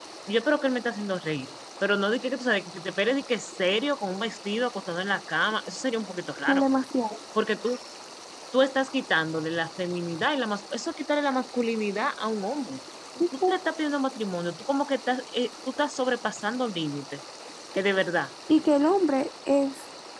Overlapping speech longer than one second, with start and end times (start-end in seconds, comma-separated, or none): none